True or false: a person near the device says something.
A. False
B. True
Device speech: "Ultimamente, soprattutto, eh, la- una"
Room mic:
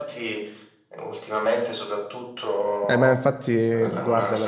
B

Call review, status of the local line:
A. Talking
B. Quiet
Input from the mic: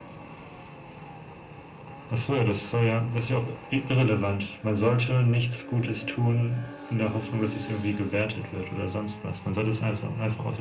B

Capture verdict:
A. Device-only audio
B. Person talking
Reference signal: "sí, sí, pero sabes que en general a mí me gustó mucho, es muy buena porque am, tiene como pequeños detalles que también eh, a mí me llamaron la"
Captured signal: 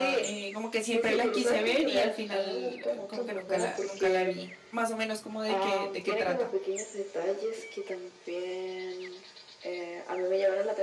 B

